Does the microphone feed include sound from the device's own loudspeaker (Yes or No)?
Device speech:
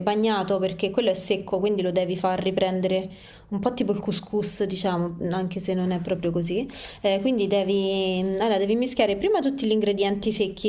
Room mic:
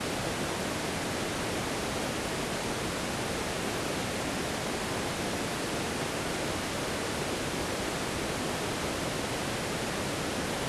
No